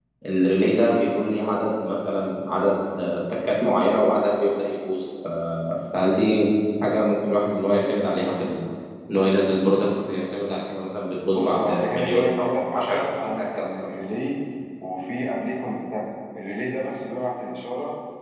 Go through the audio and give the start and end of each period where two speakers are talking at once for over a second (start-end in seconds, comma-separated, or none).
11.3-13.9